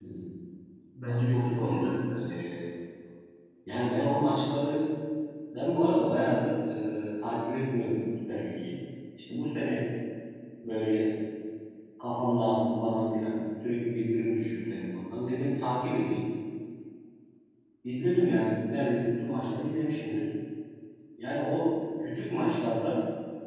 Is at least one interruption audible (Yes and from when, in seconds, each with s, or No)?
Yes, from 1.1 s